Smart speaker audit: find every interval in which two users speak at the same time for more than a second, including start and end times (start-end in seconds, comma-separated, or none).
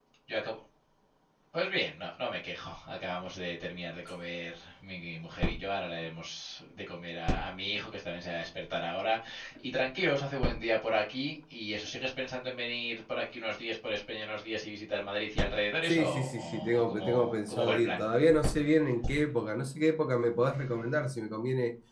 15.8-18.0